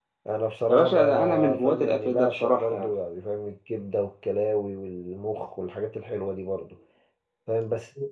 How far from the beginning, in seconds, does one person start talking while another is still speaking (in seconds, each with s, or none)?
0.7 s